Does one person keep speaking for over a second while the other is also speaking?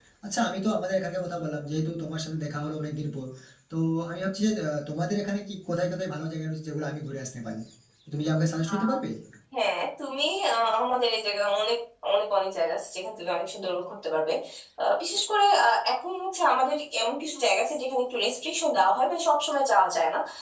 No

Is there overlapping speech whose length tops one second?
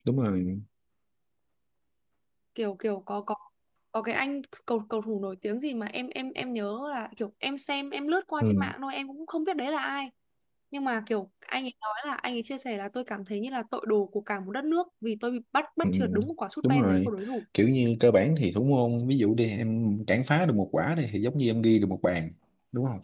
No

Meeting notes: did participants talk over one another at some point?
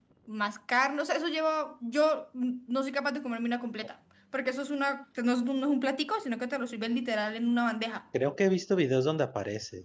No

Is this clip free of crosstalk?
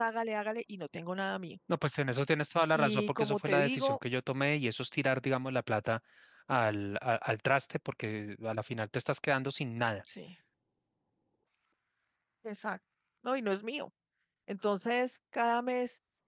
No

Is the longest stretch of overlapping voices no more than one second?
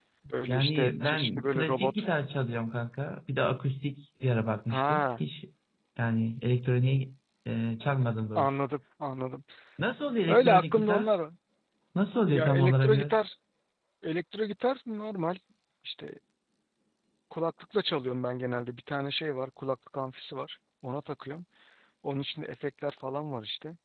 No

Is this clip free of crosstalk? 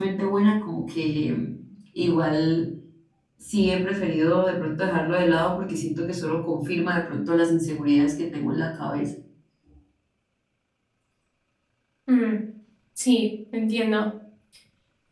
Yes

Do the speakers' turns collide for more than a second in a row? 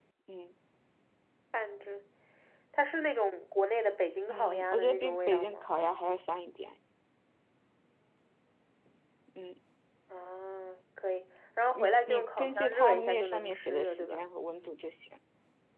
Yes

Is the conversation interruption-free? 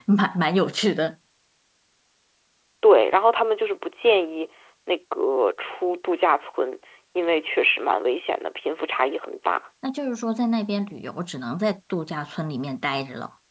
Yes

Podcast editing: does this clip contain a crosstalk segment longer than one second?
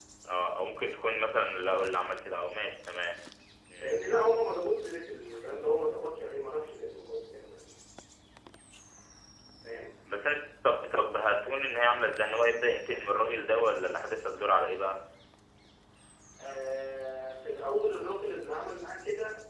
No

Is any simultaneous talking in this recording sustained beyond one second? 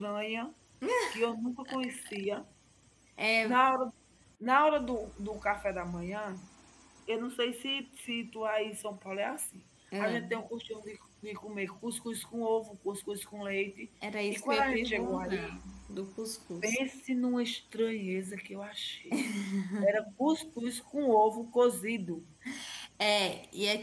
Yes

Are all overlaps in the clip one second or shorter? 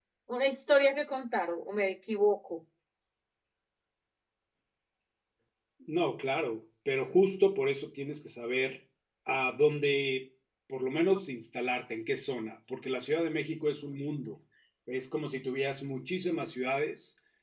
Yes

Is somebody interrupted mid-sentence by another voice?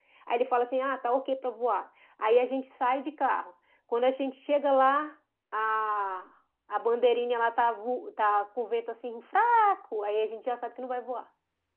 No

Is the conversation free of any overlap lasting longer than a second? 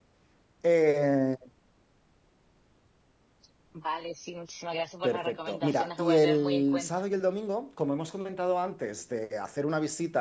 No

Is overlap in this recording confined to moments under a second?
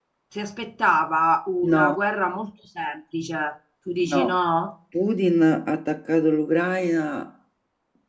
Yes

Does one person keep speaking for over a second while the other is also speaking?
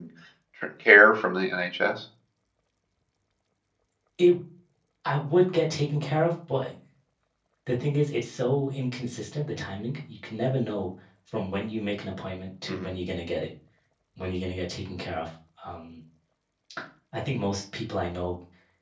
No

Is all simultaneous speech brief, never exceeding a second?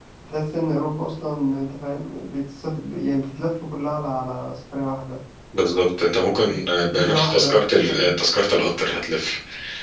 No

